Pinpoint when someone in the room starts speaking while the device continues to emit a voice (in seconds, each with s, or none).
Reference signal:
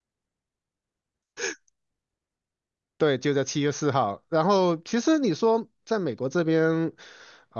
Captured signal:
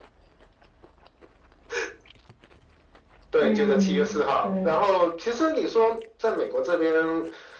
3.3 s